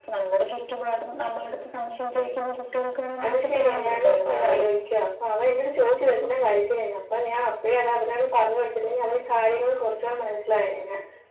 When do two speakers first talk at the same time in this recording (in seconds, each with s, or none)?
3.2 s